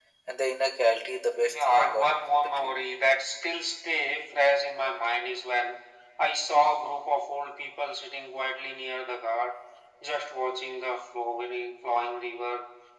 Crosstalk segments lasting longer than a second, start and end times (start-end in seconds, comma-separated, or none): 1.4-2.7